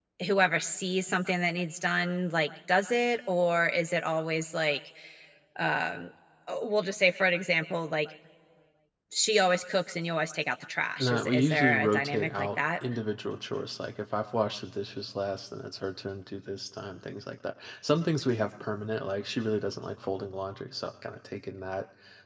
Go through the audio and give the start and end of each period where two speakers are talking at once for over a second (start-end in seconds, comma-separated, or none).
11.0-12.6